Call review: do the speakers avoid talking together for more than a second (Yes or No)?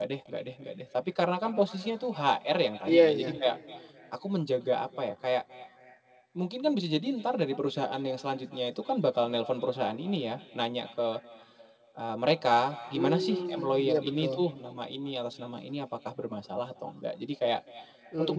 No